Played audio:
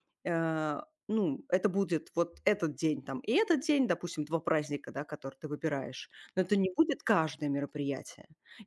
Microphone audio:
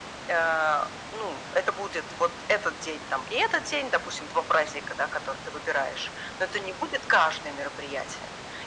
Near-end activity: none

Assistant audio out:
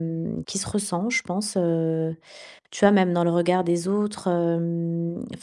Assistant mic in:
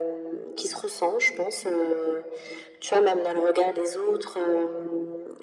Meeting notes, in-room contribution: none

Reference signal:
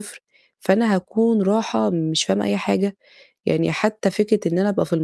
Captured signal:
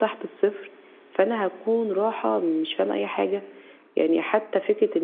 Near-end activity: none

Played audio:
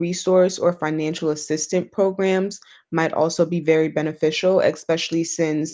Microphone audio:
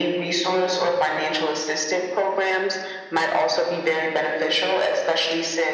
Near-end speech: none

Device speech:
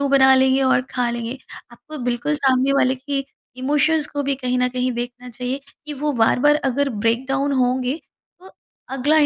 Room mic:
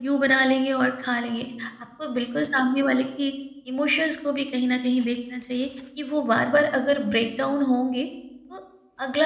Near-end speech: none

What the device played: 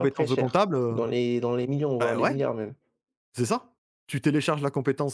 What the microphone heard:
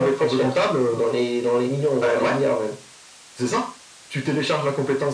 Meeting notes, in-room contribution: none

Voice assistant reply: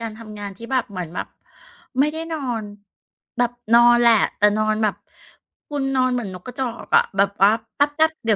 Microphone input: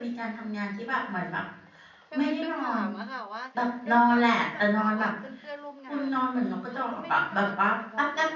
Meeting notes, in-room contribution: present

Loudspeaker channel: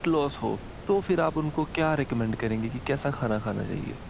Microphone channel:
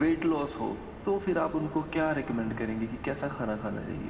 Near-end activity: none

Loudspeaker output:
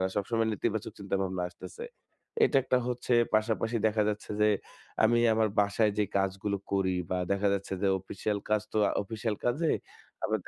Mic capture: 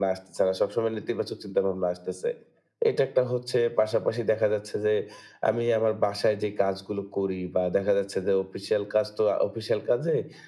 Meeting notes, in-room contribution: none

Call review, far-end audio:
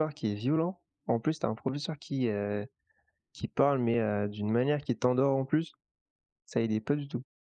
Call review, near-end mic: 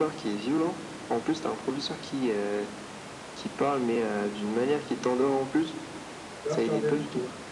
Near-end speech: present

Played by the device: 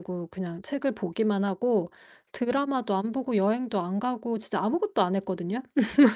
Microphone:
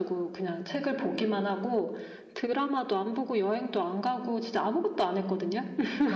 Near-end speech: present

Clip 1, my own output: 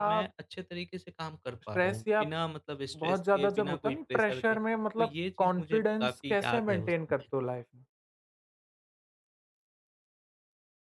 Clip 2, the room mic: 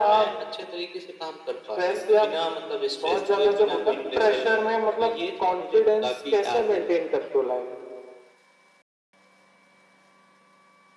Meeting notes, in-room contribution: none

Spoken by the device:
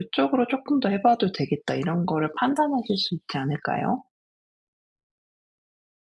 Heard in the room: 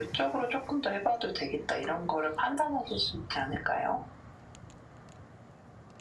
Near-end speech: none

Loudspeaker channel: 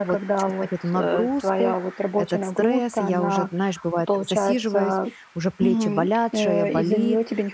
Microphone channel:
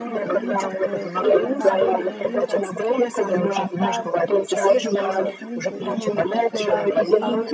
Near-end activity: present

